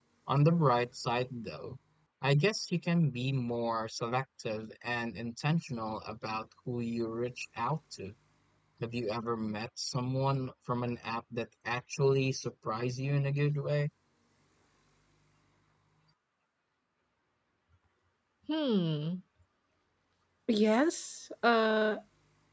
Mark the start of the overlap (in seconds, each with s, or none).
none